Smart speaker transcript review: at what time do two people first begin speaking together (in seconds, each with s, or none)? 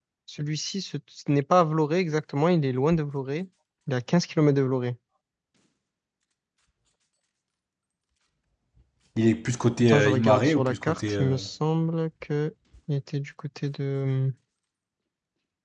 9.8 s